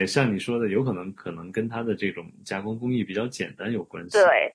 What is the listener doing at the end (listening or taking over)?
taking over